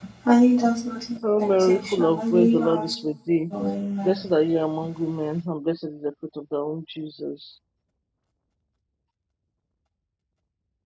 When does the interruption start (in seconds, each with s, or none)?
1.2 s